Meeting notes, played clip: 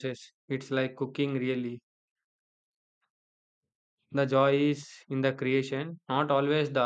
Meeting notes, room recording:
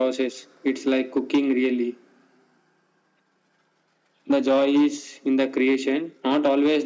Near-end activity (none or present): none